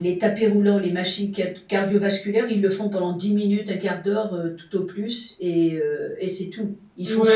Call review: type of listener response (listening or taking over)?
taking over